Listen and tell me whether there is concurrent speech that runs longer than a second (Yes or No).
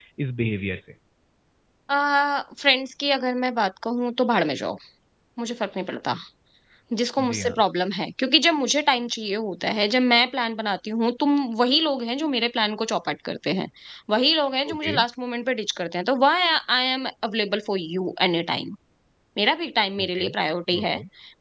No